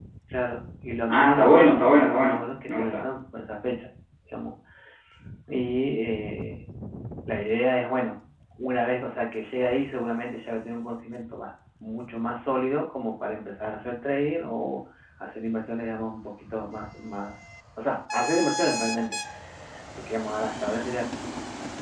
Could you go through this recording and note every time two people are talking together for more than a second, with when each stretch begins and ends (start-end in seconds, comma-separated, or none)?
1.1-3.1